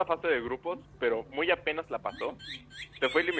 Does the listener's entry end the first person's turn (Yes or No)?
No